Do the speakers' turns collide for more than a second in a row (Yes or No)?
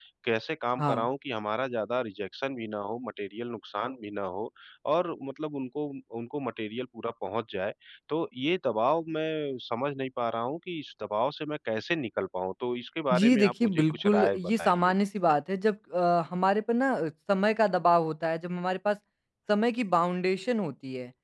Yes